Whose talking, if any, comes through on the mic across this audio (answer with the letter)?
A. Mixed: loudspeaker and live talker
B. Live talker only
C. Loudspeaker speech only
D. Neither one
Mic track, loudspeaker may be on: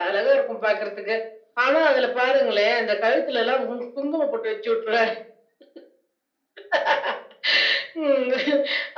C